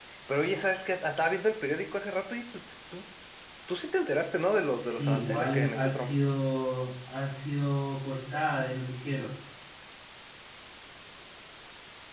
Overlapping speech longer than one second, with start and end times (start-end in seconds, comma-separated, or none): 4.8-6.1